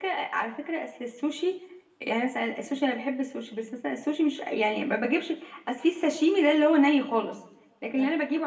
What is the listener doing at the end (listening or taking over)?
listening